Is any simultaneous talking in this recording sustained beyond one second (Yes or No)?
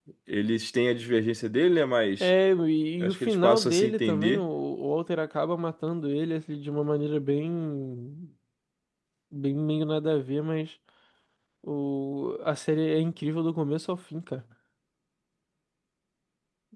Yes